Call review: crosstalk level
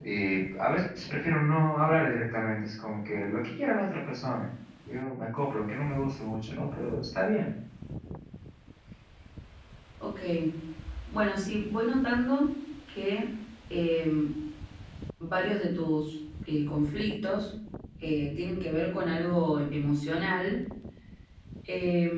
none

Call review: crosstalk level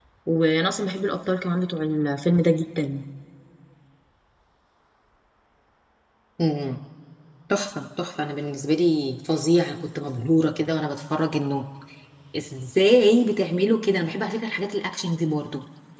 none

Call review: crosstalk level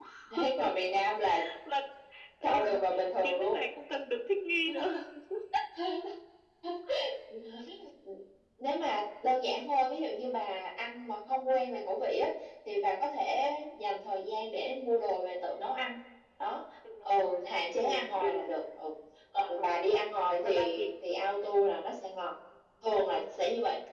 present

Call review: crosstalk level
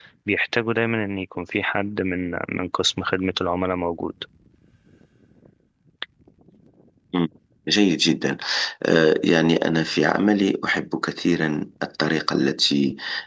none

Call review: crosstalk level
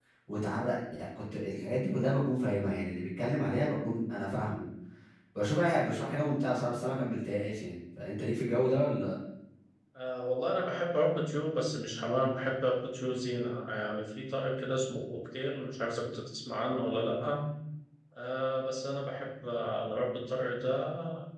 none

